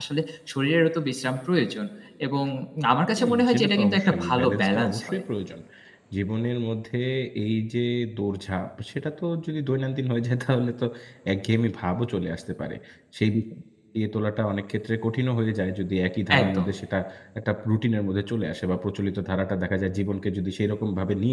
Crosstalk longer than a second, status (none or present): present